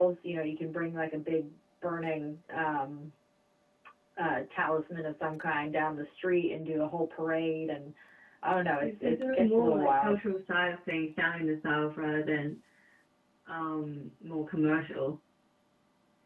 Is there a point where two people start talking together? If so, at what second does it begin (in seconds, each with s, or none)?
9.0 s